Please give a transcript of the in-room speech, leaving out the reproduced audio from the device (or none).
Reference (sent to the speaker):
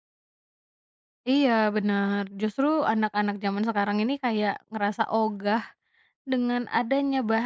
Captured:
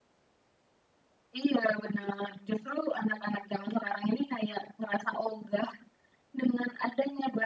none